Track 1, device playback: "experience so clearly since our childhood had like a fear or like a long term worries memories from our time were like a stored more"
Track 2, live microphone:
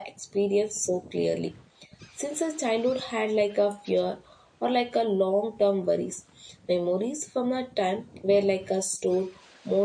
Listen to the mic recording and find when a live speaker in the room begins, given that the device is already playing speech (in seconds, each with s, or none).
none